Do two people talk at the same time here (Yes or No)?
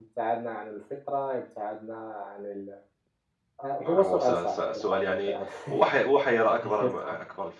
Yes